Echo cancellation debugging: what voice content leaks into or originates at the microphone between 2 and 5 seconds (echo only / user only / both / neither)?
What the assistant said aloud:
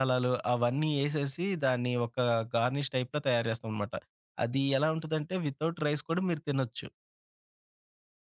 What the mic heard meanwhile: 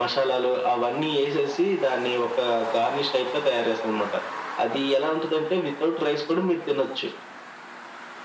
echo only